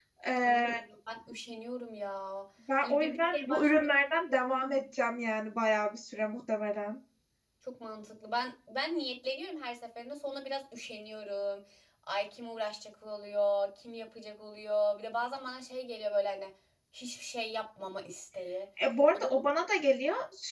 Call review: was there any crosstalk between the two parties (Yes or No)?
Yes